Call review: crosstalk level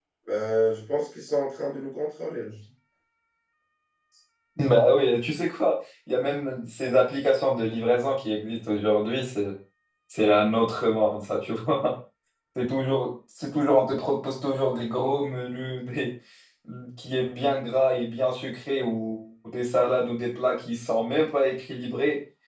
none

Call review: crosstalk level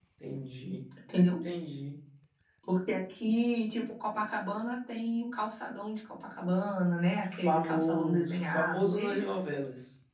present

